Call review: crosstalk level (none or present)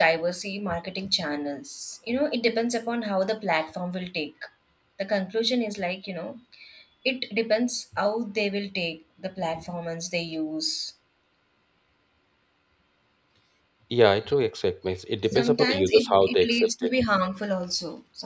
present